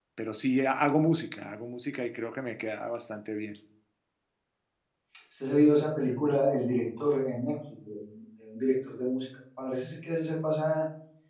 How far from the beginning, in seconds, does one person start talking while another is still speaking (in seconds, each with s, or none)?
none